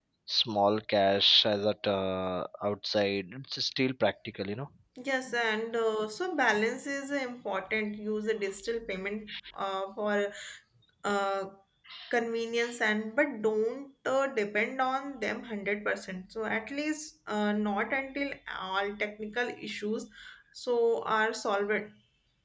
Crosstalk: none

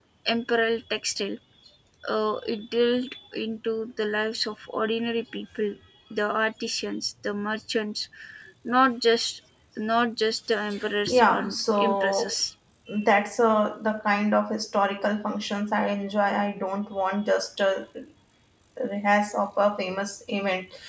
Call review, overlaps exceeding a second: present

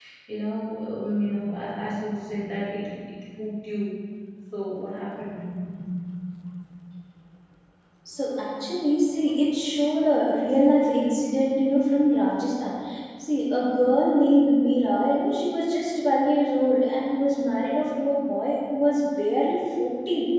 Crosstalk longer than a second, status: none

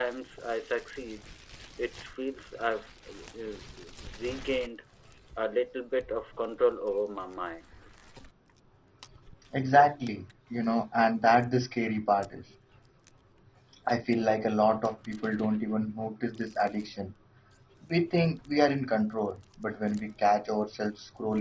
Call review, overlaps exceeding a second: none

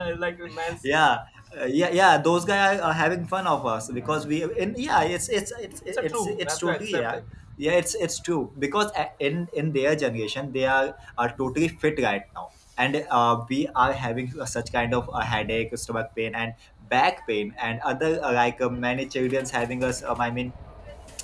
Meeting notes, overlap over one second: present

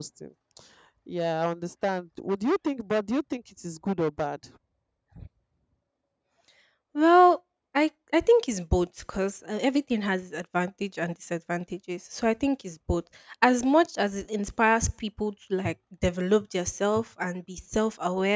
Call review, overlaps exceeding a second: none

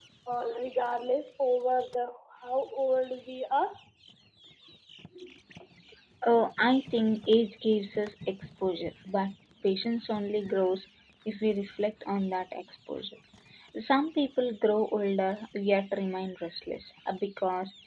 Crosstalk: none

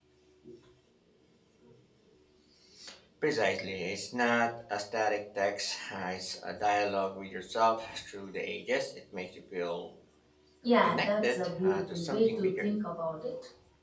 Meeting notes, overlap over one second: present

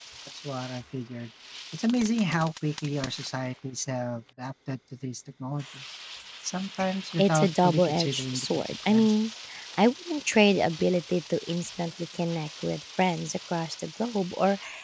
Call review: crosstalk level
present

